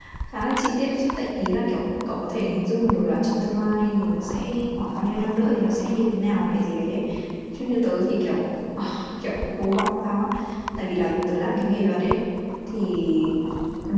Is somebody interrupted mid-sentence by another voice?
No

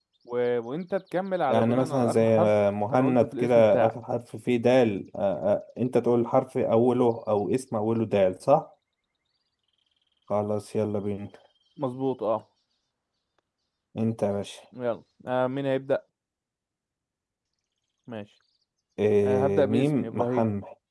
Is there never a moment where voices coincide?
No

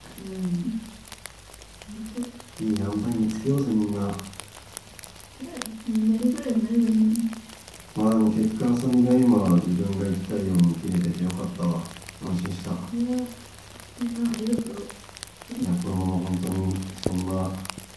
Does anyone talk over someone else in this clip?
No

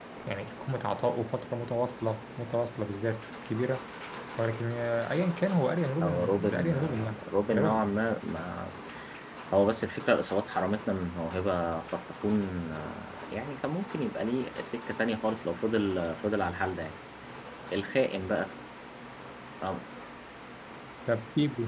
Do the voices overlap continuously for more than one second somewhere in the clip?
Yes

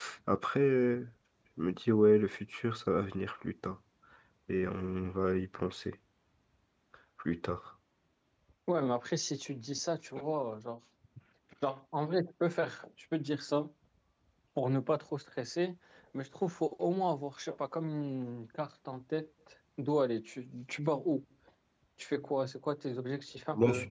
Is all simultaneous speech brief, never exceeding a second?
Yes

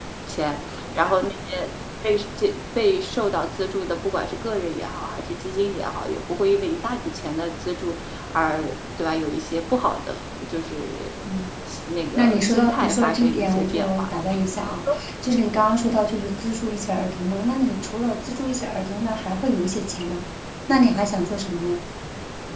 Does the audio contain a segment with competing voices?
Yes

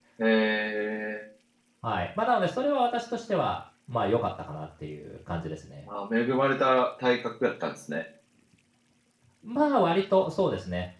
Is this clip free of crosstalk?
Yes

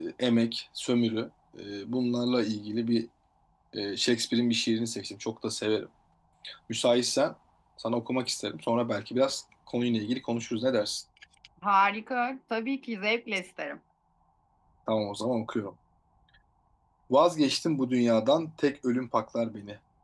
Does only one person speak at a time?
Yes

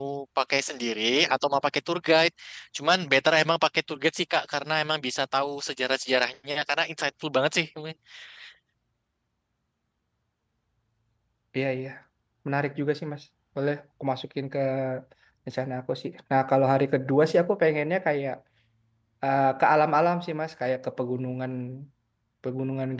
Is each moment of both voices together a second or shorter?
Yes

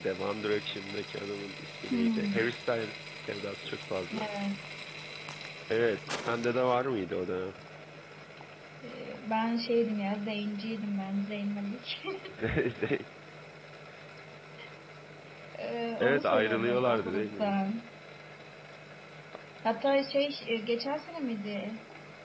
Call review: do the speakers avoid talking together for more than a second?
No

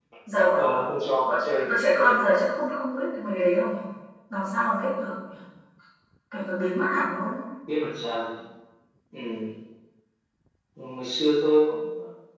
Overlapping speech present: Yes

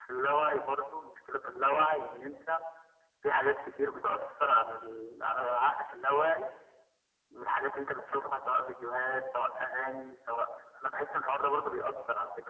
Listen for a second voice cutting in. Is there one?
No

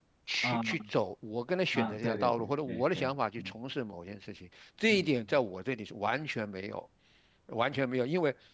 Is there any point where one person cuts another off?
Yes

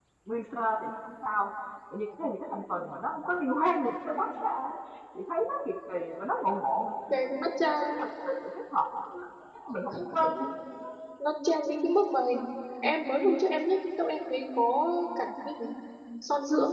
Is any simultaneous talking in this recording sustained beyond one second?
No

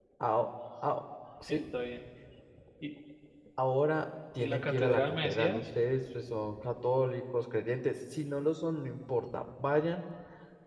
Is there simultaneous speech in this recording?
Yes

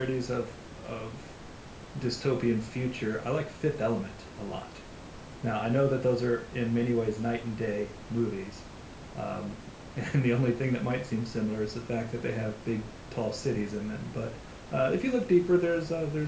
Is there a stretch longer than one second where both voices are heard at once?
No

